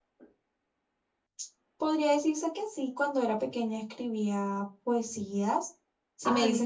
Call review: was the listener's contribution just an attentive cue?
Yes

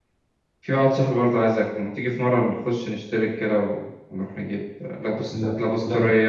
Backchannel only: Yes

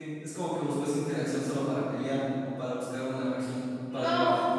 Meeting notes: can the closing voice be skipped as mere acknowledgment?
No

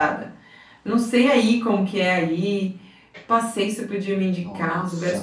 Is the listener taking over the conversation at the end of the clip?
No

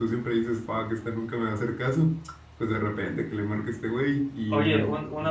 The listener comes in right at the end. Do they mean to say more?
Yes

